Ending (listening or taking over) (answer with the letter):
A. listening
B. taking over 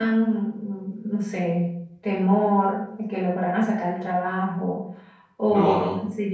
A